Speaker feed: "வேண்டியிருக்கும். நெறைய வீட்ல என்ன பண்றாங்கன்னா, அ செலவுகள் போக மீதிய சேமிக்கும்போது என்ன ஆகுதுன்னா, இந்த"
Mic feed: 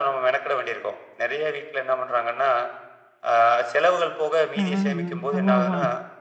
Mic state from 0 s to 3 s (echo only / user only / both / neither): echo only